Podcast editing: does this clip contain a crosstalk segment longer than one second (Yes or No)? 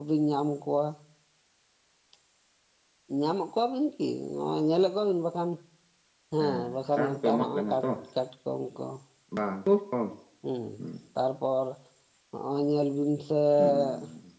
Yes